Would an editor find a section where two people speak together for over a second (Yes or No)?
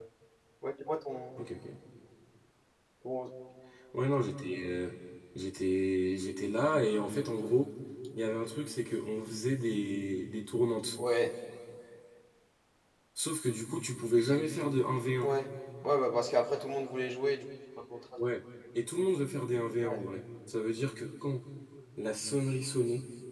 No